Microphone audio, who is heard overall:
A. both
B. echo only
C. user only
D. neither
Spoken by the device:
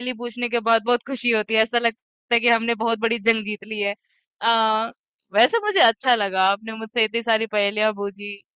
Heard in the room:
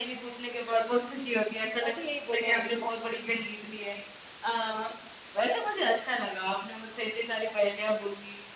A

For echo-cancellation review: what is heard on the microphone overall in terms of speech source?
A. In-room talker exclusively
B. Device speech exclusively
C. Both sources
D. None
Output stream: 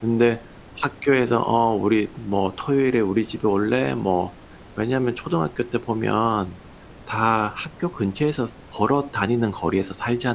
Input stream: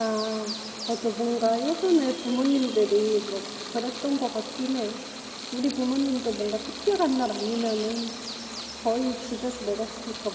A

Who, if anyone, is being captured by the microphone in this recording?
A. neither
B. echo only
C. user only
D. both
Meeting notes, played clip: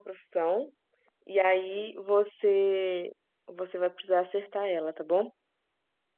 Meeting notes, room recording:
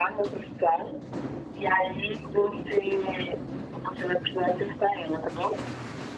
B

